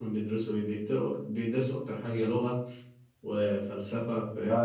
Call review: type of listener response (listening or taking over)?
taking over